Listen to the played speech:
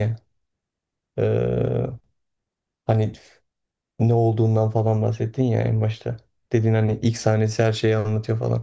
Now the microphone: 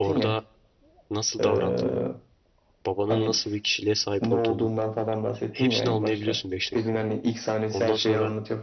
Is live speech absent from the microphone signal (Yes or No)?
No